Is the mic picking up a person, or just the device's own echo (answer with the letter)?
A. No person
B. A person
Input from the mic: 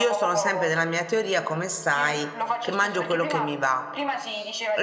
B